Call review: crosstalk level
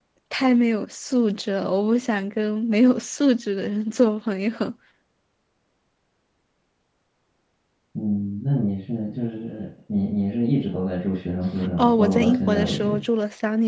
present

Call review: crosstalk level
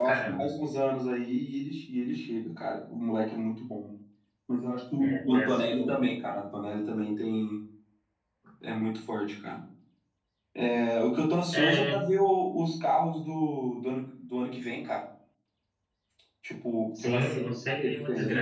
present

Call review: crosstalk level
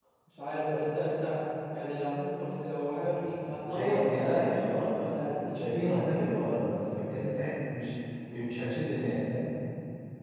present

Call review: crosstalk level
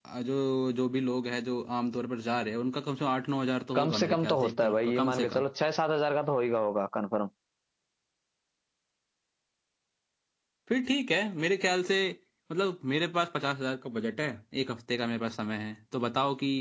present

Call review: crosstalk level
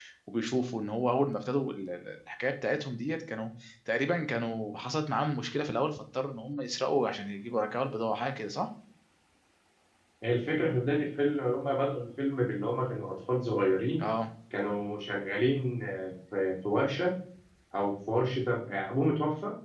none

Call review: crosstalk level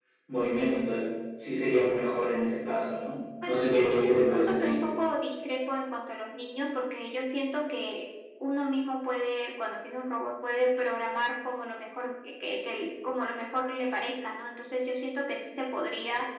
present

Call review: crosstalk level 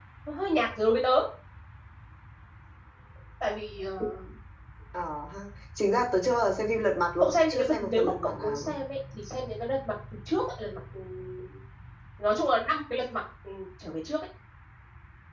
present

